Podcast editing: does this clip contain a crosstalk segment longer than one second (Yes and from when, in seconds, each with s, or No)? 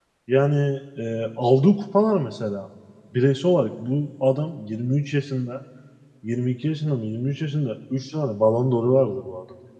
No